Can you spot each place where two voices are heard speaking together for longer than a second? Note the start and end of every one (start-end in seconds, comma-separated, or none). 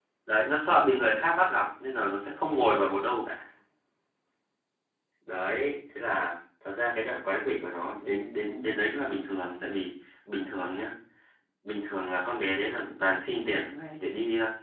none